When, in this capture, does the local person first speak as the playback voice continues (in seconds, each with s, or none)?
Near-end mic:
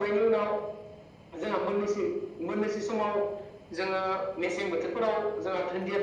none